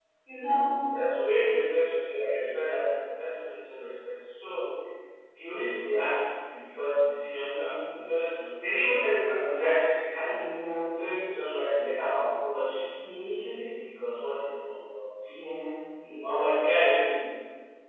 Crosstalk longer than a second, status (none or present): none